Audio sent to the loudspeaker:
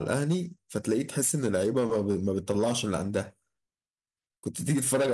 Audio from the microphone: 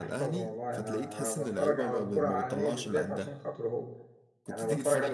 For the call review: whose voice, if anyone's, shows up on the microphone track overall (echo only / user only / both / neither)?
both